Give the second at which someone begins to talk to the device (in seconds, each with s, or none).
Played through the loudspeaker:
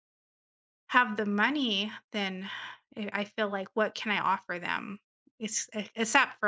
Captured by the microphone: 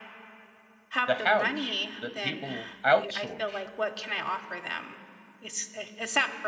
1.1 s